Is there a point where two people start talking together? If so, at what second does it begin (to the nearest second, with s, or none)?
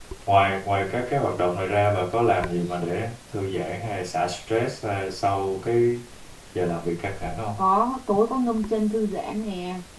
none